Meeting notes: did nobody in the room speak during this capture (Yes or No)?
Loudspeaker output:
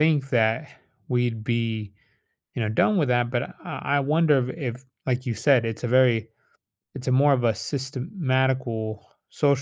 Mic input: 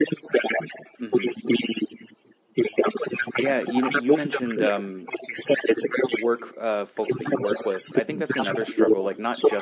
No